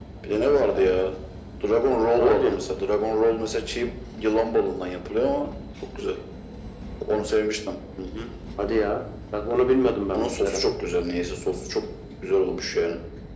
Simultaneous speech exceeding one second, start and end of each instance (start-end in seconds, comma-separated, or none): none